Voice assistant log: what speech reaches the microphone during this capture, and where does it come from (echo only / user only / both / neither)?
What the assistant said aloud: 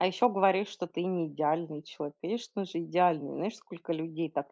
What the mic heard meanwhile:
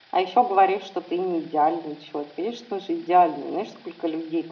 echo only